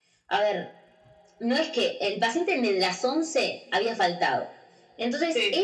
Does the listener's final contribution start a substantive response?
No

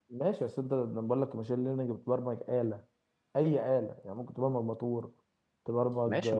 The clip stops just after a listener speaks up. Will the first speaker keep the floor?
No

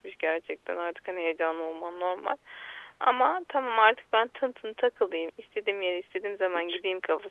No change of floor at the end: Yes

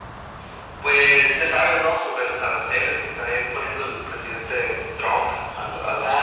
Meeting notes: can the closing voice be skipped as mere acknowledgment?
No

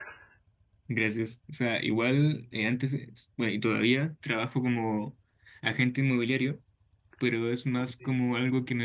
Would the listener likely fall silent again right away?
Yes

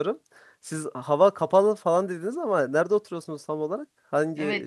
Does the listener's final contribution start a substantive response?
Yes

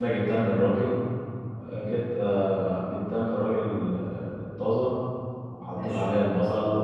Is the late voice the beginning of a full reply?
No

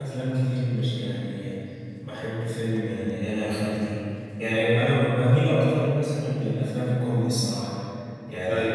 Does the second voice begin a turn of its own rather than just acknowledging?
No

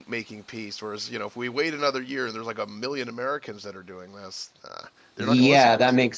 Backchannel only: No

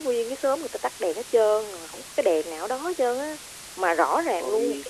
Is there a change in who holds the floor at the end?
No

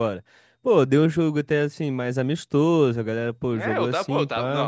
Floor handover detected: Yes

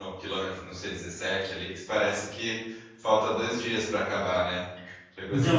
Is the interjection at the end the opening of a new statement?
Yes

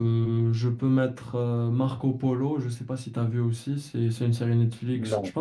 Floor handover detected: No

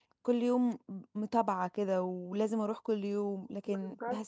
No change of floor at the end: Yes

